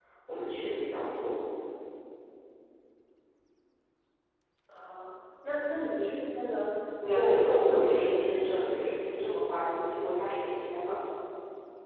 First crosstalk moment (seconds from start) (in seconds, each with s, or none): 7.0 s